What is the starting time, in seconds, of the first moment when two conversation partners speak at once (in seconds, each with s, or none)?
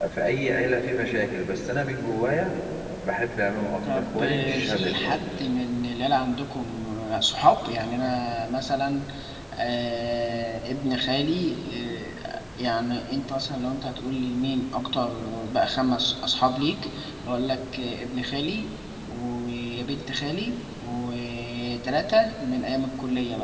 3.8 s